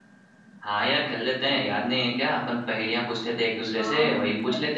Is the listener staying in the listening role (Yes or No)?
No